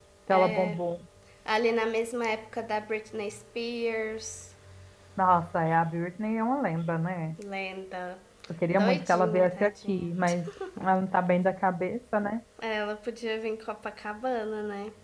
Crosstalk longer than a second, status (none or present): present